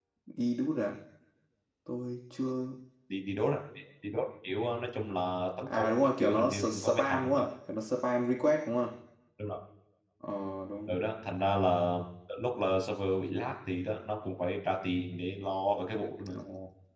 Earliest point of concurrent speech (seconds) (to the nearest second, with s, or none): 6 s